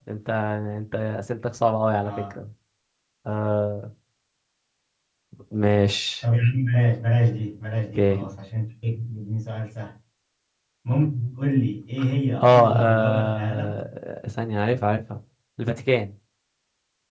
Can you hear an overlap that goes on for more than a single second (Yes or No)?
Yes